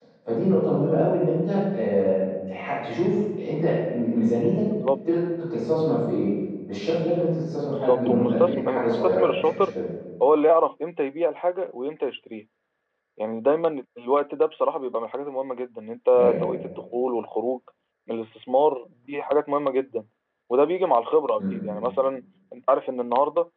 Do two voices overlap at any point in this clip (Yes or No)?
Yes